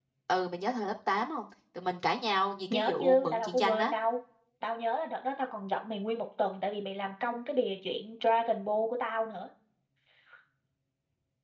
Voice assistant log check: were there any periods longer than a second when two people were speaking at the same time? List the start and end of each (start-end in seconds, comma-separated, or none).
2.7-3.9